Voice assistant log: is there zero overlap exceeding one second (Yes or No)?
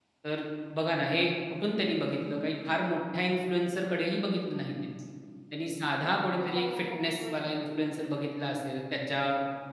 No